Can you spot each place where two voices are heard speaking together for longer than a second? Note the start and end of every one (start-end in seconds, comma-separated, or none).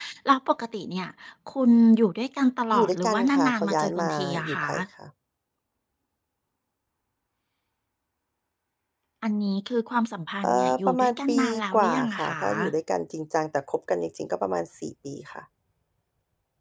2.7-4.7, 10.4-12.4